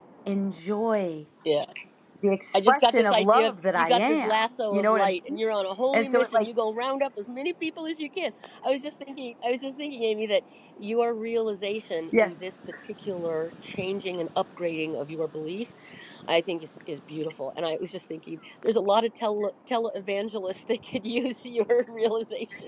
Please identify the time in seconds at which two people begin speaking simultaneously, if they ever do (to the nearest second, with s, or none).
3 s